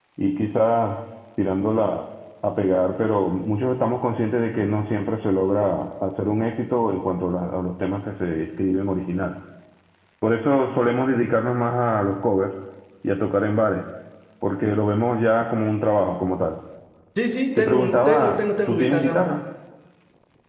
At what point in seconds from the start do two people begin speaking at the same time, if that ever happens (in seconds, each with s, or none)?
17.6 s